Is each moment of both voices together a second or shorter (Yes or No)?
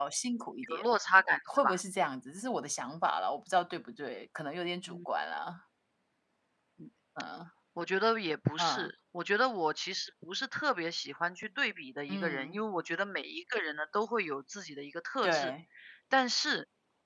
Yes